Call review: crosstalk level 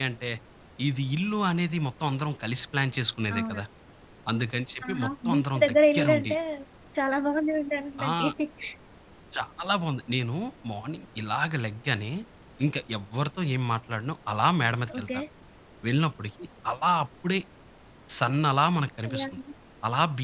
present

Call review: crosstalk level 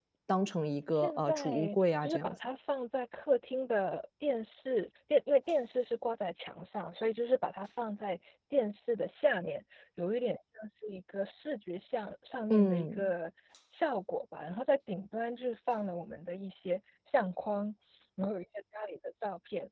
present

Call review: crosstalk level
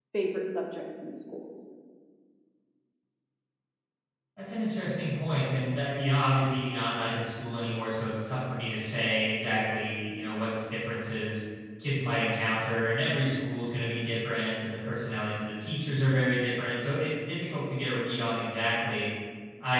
none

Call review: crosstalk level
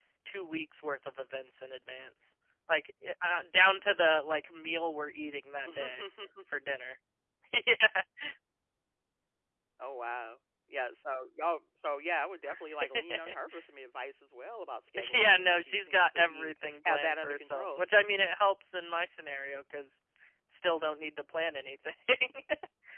present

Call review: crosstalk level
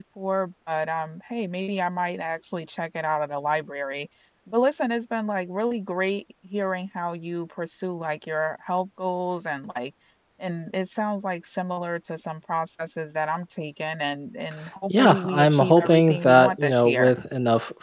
present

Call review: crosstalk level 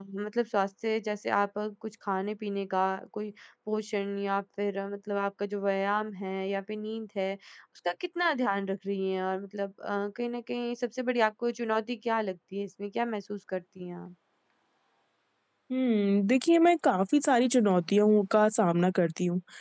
none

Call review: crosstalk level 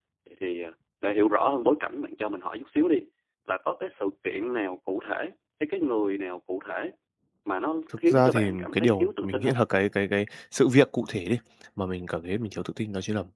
present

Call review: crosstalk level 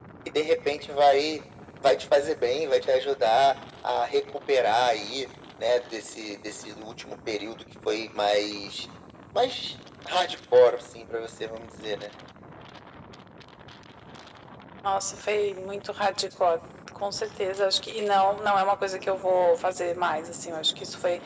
none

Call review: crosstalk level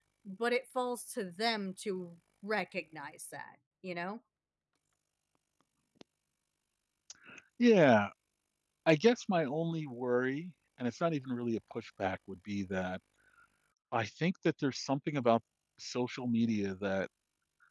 none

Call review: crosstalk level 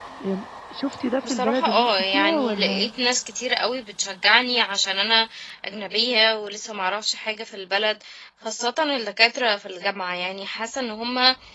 present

